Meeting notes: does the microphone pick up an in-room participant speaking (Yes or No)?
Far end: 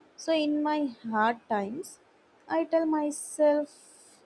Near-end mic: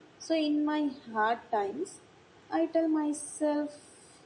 No